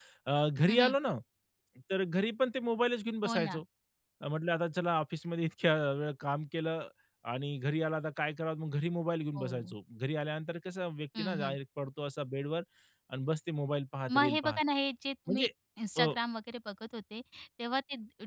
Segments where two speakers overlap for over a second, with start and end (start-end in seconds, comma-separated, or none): none